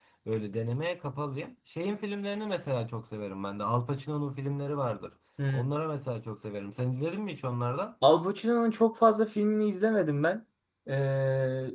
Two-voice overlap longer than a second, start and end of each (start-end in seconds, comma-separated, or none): none